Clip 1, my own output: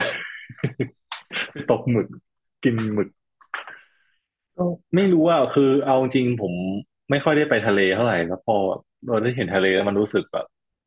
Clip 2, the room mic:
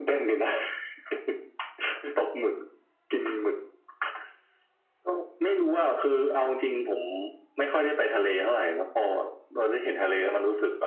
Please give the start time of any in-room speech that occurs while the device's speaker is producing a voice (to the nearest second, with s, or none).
none